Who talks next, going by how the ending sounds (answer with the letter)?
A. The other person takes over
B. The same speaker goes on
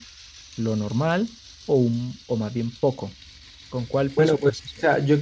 A